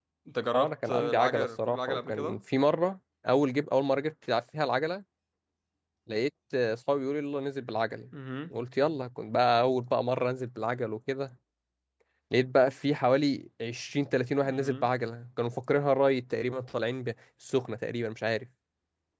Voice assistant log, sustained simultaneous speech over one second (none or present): present